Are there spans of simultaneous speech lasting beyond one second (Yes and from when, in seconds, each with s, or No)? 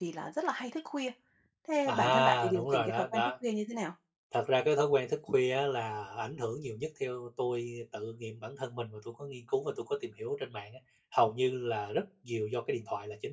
Yes, from 1.9 s